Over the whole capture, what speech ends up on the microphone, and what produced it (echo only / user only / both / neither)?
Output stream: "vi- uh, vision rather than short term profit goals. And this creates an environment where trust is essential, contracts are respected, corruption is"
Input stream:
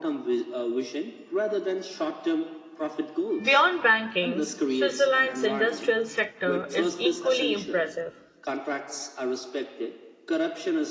both